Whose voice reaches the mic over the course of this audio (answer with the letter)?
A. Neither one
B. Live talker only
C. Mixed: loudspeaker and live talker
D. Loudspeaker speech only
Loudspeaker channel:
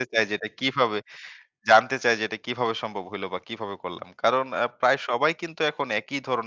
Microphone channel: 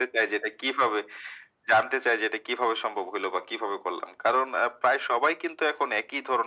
D